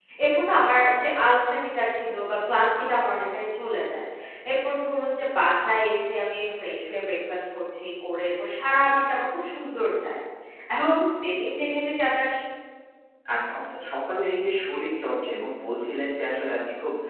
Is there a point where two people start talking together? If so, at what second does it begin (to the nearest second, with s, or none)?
none